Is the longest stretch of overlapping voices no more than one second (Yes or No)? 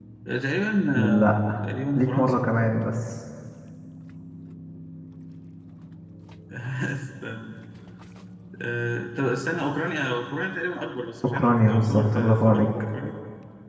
No